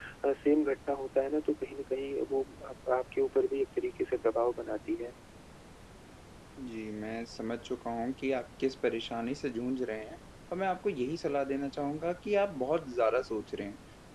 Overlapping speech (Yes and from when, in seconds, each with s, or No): No